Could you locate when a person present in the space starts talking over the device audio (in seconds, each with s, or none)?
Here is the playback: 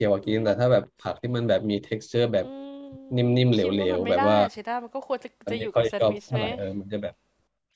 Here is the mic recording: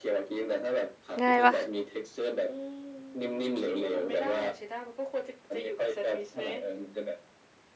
1.2 s